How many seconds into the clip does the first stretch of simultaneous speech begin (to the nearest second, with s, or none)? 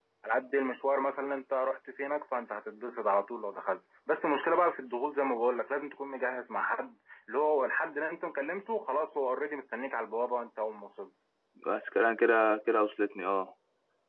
none